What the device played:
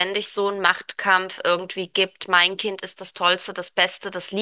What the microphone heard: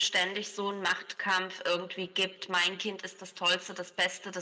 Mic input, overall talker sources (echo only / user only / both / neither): echo only